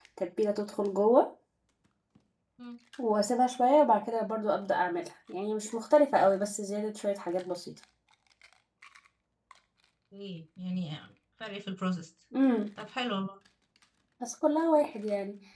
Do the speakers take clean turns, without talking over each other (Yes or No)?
Yes